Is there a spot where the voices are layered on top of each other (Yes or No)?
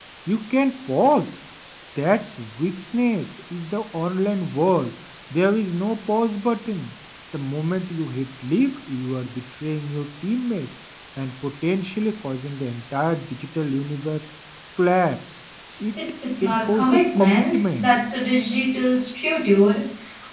Yes